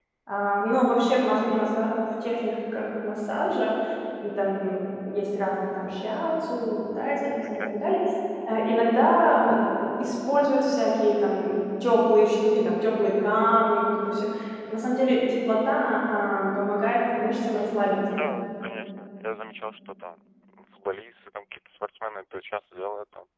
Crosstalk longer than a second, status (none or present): none